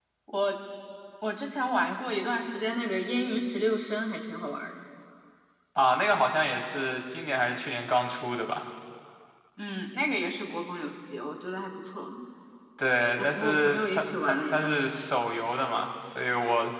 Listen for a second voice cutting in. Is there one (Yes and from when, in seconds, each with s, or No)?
Yes, from 13.2 s